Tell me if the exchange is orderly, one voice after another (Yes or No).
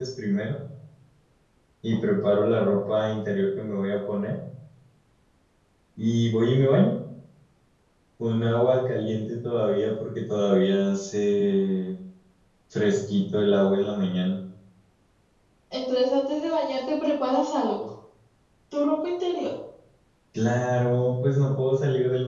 Yes